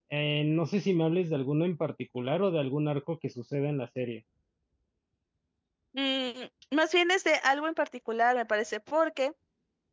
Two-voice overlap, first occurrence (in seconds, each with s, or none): none